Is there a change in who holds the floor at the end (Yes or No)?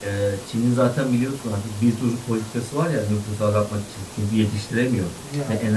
No